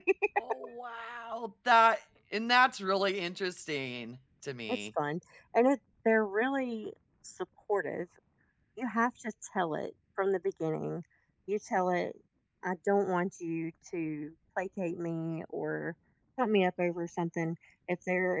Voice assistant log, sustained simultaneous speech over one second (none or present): none